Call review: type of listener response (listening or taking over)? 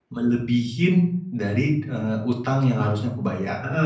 taking over